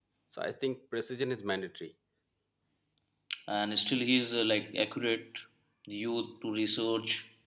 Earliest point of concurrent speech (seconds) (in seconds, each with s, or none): none